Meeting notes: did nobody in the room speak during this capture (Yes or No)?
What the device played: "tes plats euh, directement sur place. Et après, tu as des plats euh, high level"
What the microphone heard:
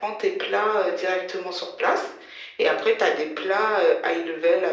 Yes